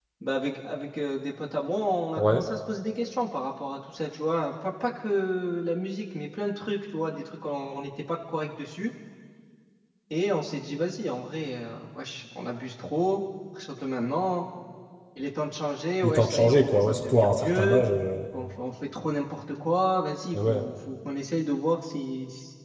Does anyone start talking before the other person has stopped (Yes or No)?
Yes